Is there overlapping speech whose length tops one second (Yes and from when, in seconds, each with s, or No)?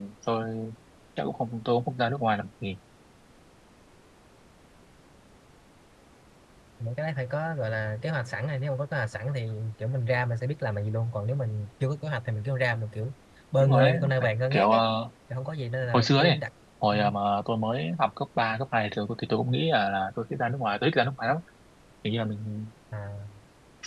Yes, from 13.6 s